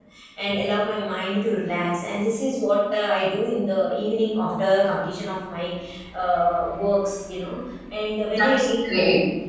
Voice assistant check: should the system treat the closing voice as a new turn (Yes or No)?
No